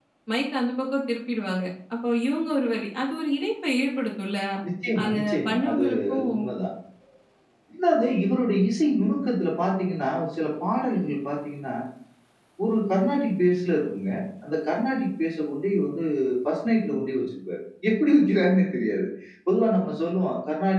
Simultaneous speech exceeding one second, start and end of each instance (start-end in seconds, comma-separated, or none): 5.0-6.3